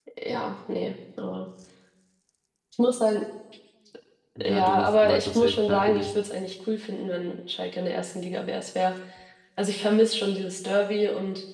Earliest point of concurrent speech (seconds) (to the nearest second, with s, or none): 4 s